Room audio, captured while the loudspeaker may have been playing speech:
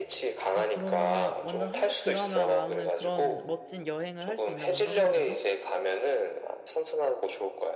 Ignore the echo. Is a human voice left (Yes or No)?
Yes